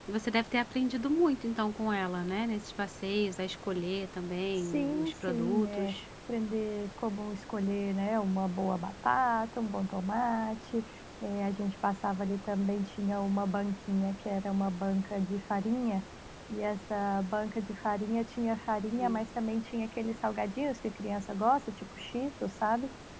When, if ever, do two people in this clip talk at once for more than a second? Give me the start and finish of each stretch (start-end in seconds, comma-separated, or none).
4.6-6.0